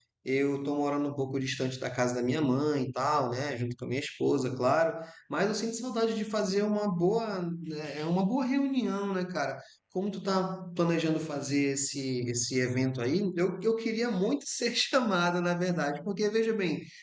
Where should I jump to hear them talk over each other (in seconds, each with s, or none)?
none